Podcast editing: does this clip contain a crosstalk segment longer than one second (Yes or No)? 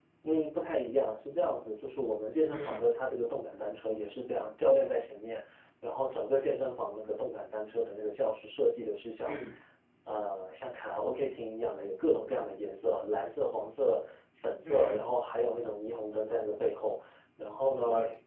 No